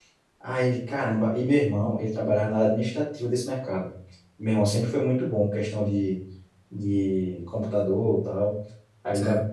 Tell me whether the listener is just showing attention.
Yes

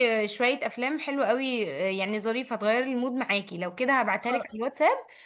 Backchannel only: Yes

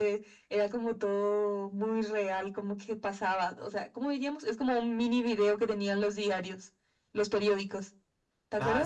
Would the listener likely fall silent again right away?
No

